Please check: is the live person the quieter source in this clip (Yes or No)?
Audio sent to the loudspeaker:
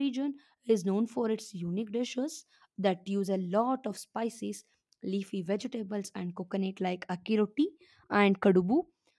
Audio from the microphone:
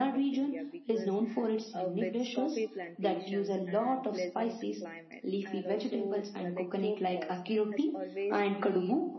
Yes